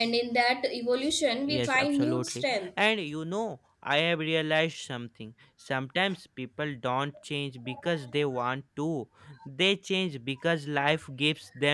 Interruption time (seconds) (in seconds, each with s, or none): 1.5 s